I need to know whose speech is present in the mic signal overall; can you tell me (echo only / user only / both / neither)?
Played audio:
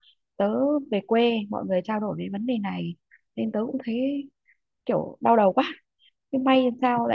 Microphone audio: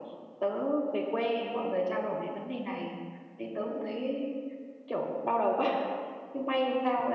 echo only